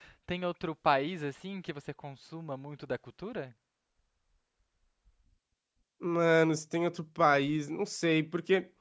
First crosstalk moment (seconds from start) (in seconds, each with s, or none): none